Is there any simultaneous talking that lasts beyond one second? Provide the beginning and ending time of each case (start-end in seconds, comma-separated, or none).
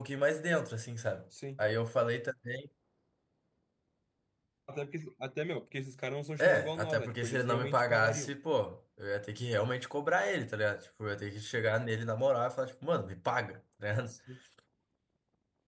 6.4-8.3